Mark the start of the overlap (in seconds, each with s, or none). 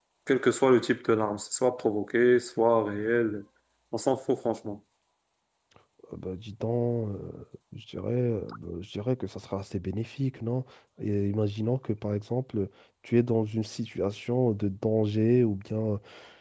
none